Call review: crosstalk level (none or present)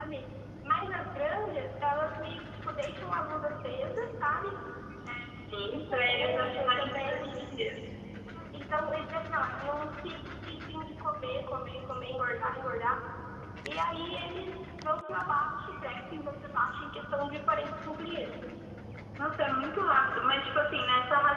present